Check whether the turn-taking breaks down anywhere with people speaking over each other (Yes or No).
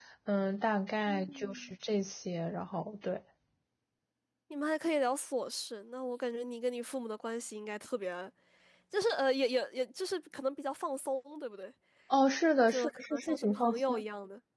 Yes